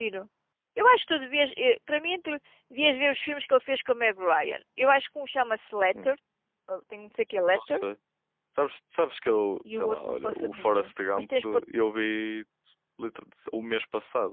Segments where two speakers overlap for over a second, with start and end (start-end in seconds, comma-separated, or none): 9.7-11.6